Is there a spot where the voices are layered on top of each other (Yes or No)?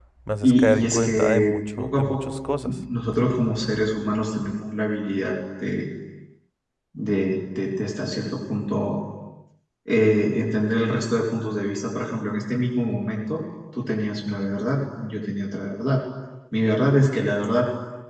Yes